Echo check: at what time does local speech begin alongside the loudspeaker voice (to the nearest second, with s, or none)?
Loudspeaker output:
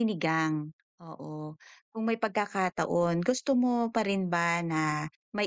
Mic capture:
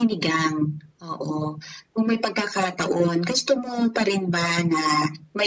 none